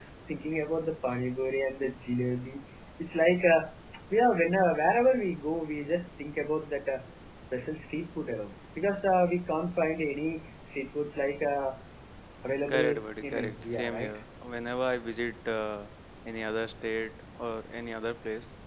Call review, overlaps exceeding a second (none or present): present